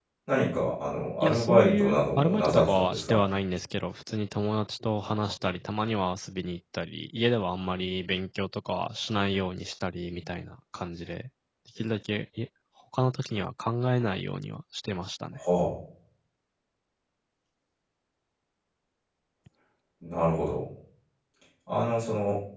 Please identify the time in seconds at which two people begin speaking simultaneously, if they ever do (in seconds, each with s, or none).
1.2 s